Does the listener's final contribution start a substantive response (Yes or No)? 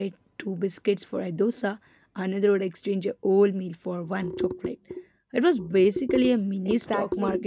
Yes